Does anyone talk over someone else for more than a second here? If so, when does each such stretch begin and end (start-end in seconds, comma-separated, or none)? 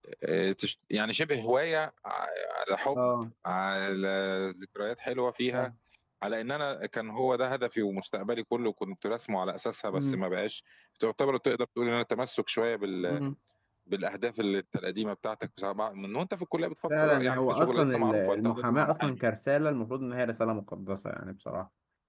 17.0-19.2